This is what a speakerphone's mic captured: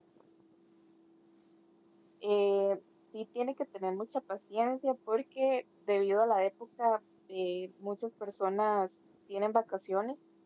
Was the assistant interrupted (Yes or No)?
Yes